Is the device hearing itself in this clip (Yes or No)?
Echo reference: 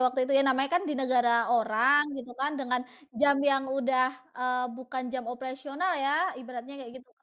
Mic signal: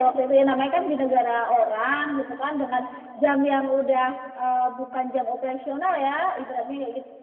Yes